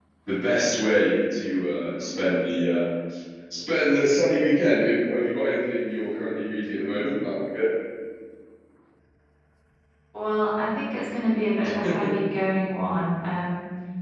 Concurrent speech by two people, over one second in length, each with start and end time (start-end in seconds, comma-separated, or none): none